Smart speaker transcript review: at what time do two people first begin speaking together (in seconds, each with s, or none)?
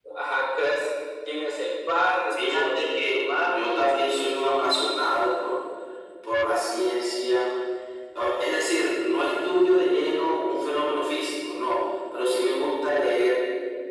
2.4 s